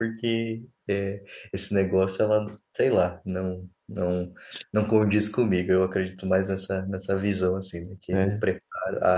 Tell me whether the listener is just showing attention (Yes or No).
Yes